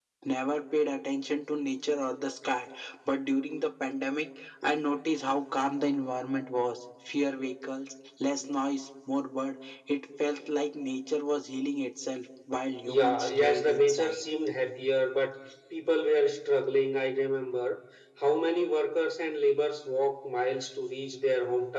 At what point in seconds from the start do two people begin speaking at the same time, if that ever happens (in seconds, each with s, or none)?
12.9 s